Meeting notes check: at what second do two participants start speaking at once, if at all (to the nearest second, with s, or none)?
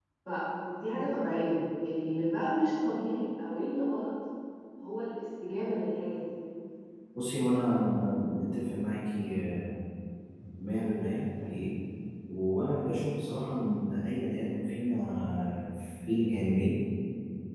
none